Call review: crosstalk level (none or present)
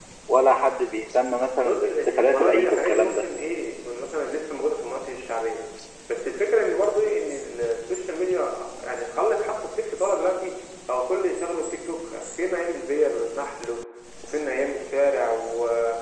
present